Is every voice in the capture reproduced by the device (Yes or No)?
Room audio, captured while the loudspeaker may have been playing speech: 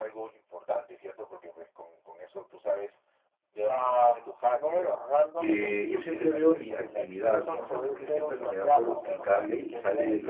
No